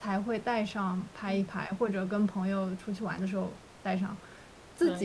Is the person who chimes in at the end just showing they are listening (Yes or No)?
Yes